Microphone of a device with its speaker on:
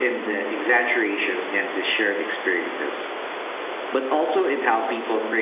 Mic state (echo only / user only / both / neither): echo only